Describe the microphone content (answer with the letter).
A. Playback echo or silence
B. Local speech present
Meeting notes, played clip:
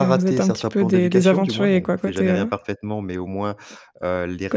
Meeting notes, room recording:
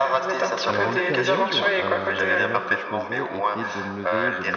B